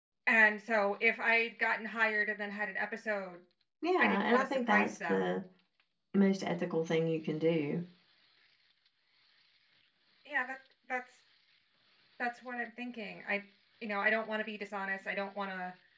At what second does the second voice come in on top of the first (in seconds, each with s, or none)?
4.0 s